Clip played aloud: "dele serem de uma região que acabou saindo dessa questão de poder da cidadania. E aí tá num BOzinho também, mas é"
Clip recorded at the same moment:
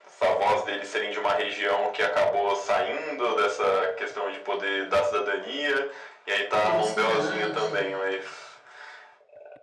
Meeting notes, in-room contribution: present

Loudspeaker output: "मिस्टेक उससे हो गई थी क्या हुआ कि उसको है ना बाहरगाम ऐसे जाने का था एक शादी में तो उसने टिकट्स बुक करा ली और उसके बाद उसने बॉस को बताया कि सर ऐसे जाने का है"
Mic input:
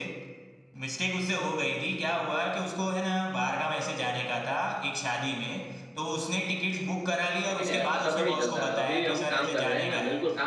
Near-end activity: present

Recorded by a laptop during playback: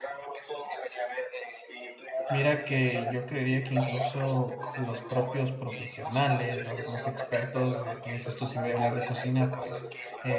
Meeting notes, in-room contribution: present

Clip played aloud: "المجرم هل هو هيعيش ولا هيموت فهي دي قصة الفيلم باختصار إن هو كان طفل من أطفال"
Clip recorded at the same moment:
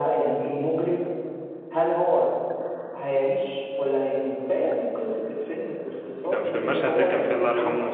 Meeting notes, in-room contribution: present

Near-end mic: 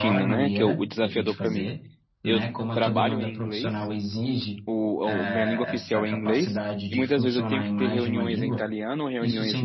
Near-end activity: present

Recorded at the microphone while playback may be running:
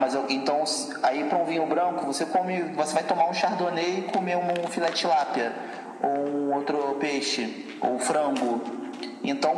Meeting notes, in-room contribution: none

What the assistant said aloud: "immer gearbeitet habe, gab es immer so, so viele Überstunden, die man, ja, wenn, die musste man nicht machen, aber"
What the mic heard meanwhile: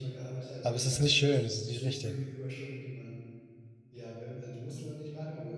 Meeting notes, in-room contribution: present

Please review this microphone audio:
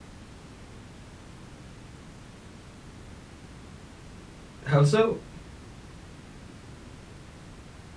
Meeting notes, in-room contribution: present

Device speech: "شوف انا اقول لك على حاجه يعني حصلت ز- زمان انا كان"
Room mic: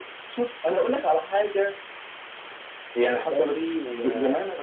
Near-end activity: present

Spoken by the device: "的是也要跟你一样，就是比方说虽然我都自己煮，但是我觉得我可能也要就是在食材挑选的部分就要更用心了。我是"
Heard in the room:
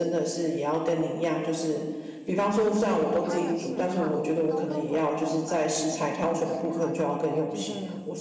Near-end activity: present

